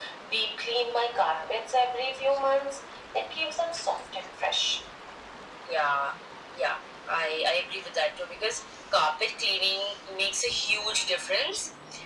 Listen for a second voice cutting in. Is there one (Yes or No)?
No